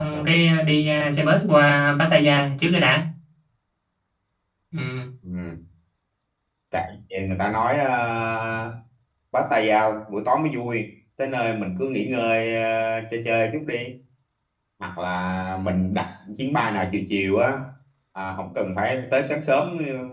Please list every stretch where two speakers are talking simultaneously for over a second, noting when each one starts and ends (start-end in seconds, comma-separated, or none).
none